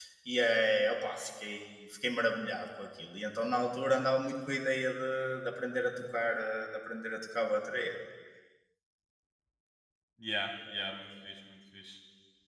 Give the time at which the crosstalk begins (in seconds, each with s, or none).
none